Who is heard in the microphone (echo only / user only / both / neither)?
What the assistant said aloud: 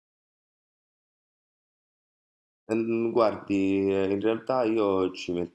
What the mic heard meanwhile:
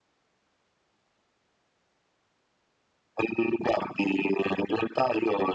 echo only